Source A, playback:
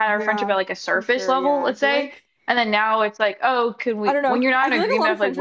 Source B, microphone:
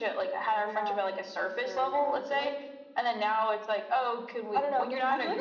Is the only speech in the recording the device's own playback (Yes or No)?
Yes